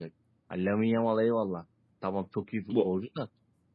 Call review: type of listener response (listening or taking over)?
listening